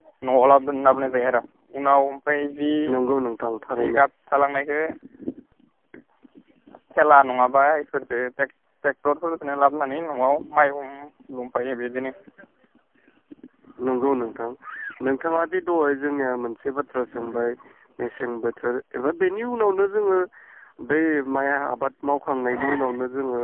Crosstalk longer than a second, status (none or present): none